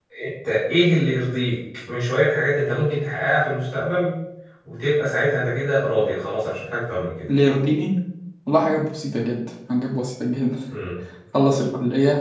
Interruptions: none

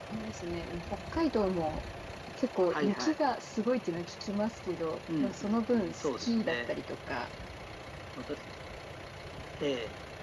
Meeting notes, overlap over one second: present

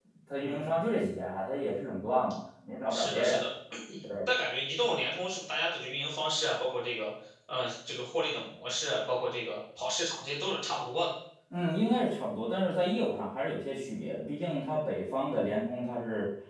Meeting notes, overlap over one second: none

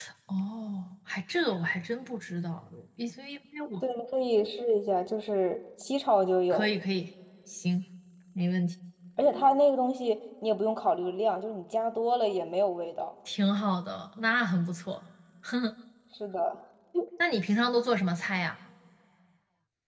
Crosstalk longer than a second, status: none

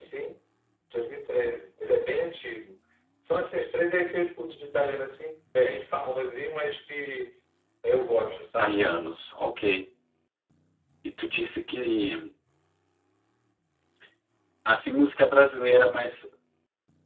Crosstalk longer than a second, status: none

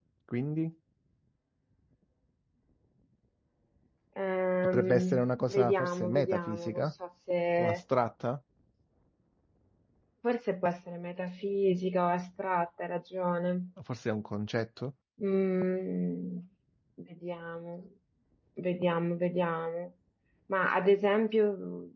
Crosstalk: present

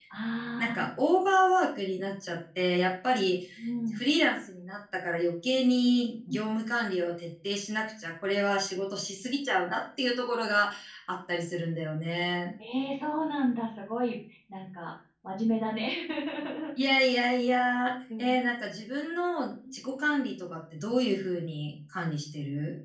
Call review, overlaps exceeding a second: none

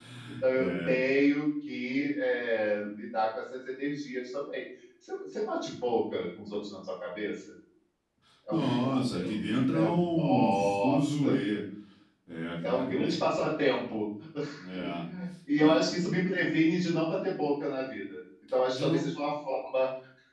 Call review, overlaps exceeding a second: present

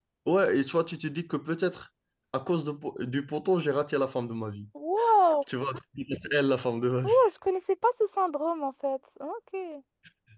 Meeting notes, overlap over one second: none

